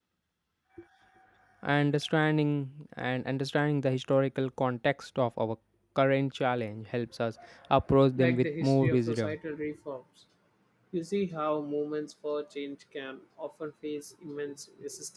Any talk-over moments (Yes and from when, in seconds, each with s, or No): Yes, from 8.1 s